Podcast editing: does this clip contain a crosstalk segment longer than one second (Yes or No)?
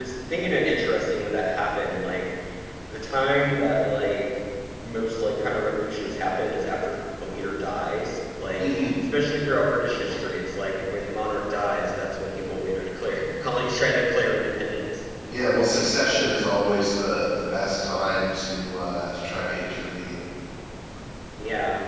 No